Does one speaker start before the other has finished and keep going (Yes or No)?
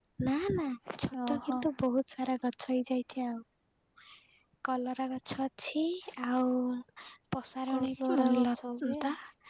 Yes